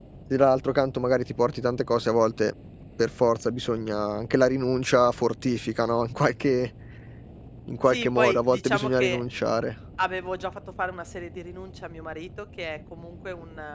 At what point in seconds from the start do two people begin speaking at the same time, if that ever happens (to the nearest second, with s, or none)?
8 s